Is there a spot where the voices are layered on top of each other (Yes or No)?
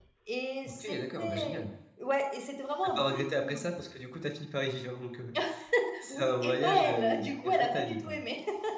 Yes